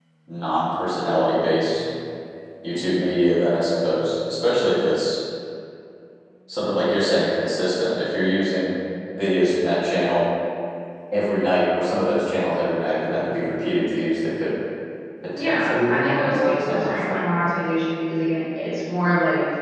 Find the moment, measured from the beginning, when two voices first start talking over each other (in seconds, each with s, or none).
15.4 s